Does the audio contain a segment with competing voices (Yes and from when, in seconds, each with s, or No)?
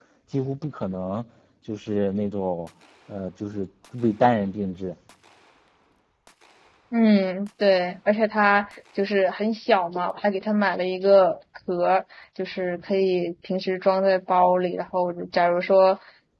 No